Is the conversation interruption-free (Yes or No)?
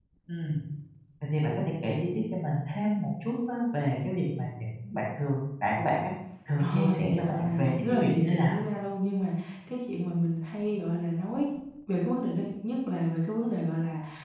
No